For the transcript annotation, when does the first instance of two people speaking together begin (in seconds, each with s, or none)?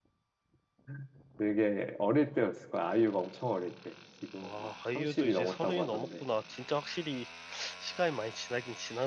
4.4 s